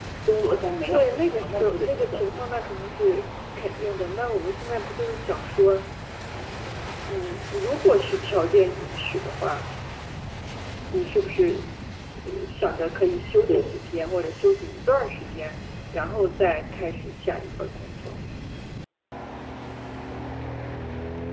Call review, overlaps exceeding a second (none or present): present